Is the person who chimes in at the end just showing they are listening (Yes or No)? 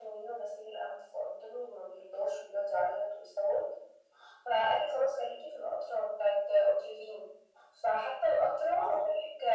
Yes